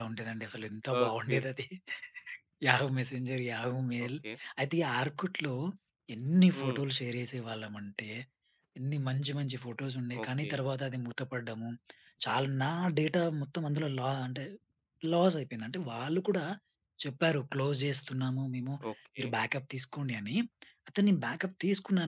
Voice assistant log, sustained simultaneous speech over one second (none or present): none